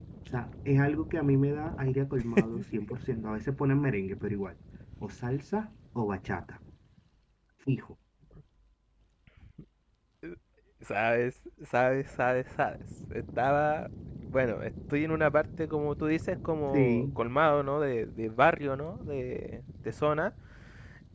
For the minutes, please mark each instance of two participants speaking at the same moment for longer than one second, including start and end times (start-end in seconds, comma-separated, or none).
none